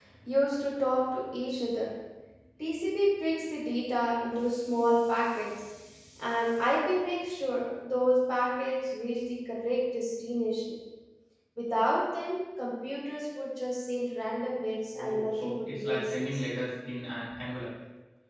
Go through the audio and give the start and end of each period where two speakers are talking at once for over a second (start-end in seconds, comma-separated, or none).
14.9-16.5